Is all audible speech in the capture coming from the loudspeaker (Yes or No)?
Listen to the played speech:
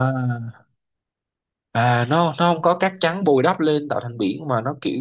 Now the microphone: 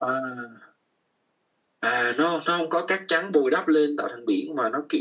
Yes